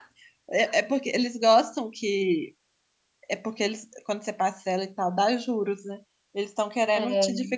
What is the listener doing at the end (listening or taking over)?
listening